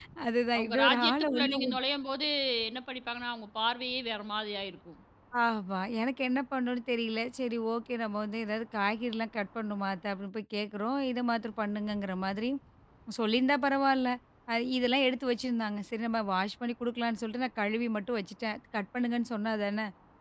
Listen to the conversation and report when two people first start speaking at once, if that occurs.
1 s

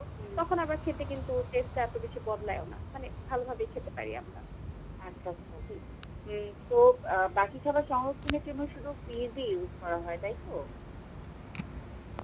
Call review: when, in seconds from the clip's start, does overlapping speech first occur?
none

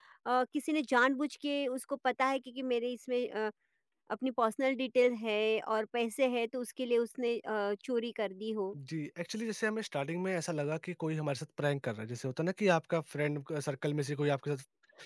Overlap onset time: none

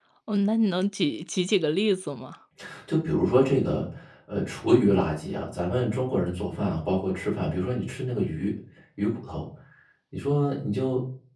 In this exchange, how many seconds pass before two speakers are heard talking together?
none

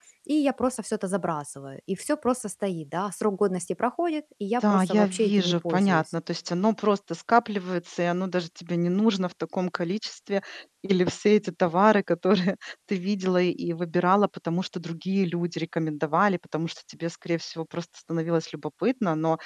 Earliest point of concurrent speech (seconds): 5 s

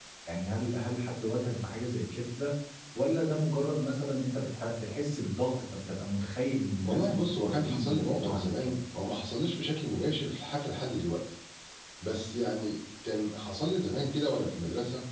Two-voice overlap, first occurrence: 7 s

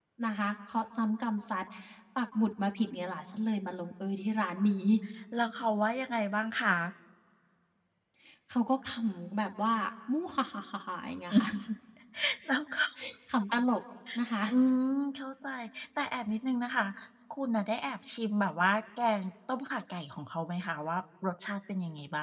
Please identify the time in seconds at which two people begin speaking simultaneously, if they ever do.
none

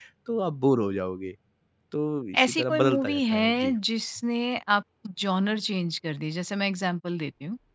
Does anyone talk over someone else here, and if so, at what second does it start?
2 s

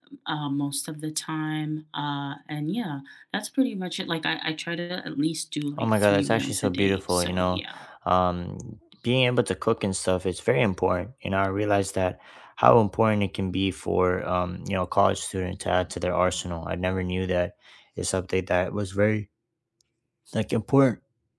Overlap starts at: 6 s

